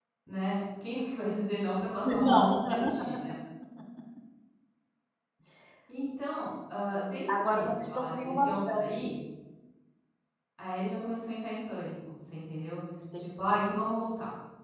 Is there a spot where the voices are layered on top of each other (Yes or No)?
Yes